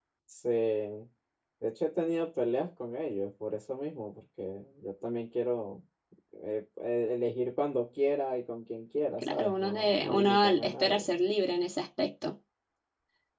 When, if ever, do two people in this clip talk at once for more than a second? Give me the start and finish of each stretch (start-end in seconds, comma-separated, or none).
9.2-11.1